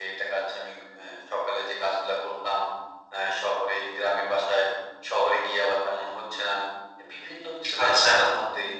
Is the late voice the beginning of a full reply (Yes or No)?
No